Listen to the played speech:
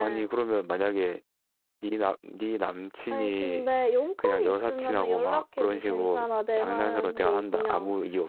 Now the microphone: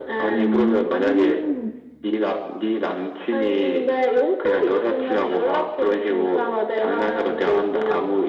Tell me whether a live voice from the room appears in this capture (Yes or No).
Yes